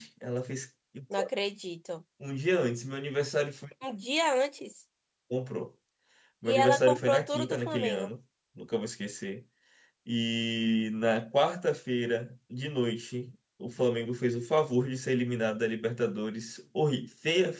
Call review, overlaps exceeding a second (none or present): present